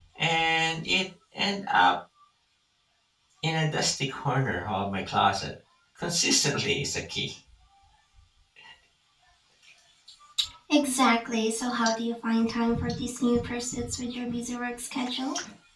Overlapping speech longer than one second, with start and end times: none

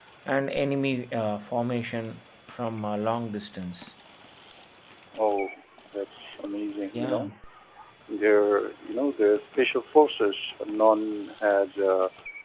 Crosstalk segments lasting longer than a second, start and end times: none

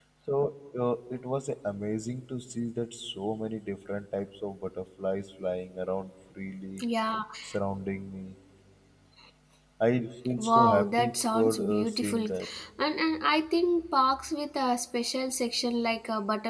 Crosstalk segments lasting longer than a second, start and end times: 10.4-12.2

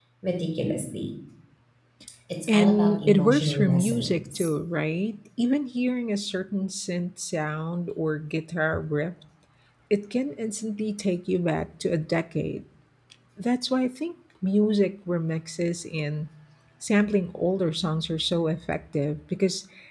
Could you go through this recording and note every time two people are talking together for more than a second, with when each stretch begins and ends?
2.5-4.5

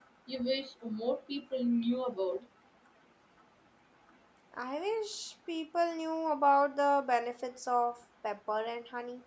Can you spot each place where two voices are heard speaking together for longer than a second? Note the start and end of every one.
none

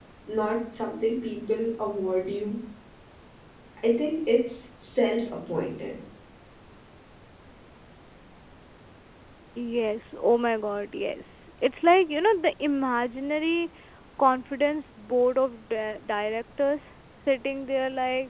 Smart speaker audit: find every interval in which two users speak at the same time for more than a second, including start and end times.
none

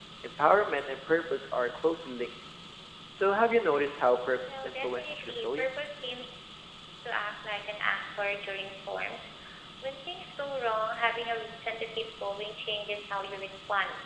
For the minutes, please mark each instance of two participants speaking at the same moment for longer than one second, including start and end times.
4.5-5.9

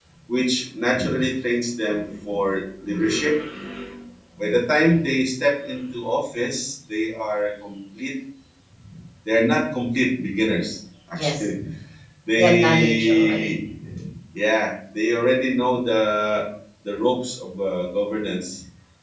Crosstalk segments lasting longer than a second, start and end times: 12.4-13.6

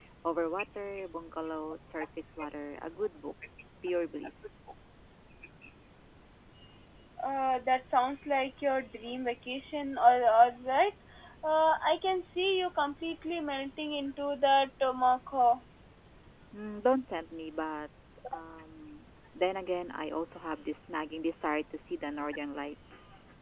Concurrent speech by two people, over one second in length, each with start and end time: none

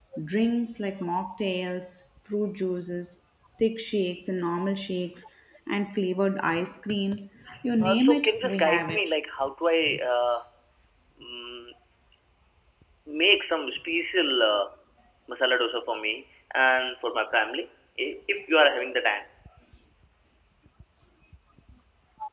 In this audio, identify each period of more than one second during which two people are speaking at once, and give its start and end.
7.8-9.1

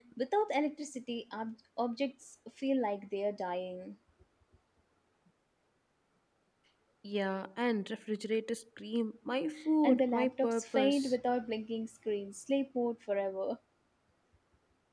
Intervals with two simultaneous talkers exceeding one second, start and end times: 9.8-11.2

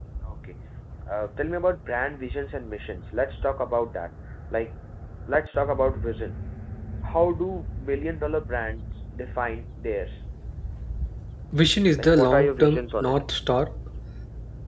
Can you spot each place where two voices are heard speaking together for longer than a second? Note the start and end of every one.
12.0-13.2

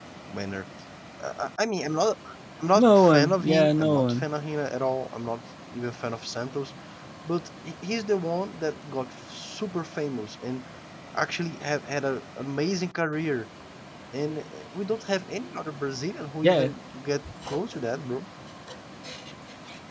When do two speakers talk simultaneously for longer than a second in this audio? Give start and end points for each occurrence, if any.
2.8-4.2

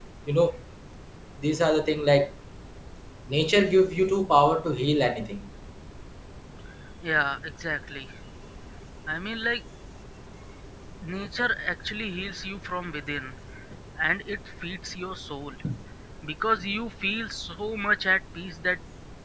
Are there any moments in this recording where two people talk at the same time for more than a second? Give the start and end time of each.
none

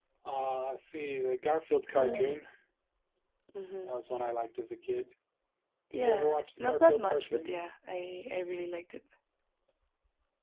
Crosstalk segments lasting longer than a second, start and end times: 5.9-7.5

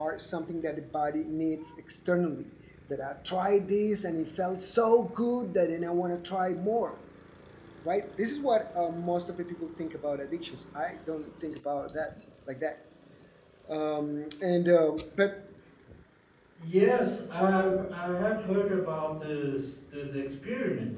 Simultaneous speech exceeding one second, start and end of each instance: none

